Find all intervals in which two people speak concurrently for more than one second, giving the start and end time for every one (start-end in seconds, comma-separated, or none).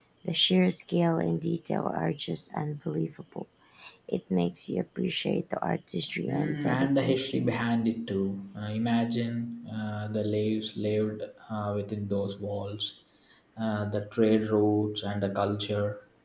6.3-7.6